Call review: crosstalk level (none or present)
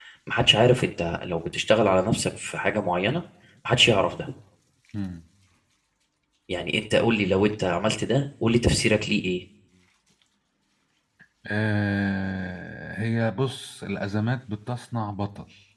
none